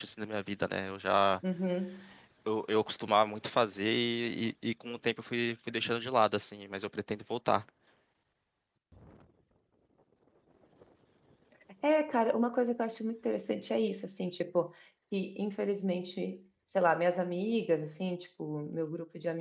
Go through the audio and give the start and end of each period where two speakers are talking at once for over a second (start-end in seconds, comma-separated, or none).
none